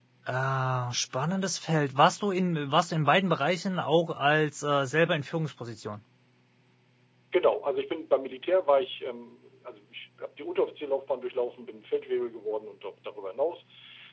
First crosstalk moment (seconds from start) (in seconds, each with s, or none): none